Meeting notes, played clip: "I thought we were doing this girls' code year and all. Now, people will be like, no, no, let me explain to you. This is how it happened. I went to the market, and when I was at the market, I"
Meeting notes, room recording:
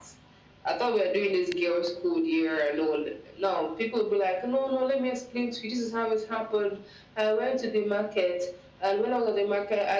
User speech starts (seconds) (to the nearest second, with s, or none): none